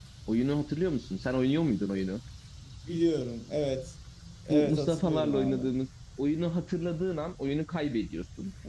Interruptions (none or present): present